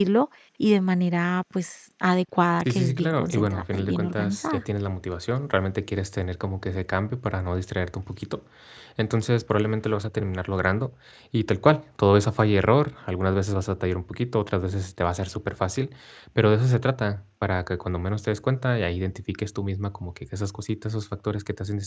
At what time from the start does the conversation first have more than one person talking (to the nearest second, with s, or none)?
3 s